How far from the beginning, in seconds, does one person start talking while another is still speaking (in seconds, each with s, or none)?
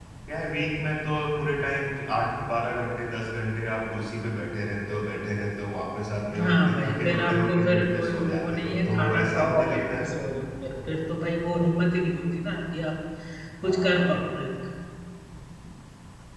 6.4 s